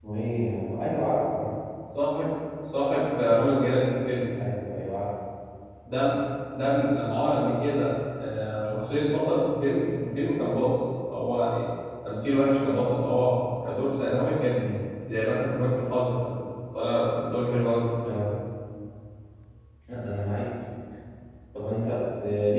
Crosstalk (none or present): none